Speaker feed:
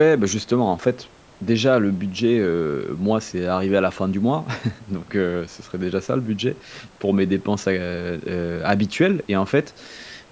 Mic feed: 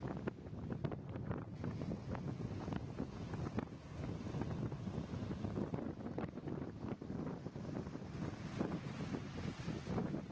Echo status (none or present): none